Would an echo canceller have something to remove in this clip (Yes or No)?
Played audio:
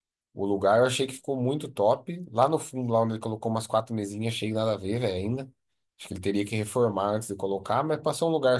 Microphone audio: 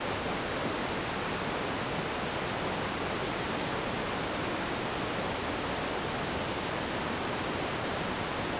No